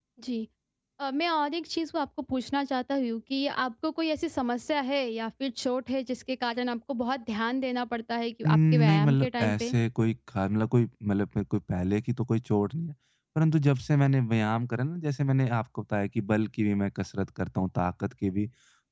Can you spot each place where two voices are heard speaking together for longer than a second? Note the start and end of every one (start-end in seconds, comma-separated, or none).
8.5-9.8